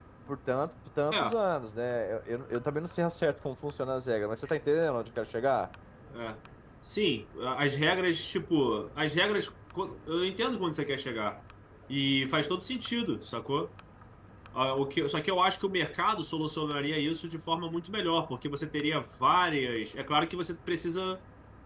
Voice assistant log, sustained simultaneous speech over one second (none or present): none